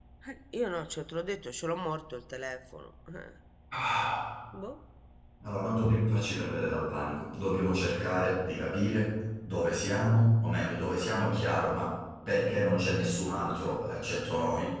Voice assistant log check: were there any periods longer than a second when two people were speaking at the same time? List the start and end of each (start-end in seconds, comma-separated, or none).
none